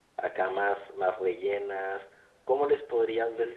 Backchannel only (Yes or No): No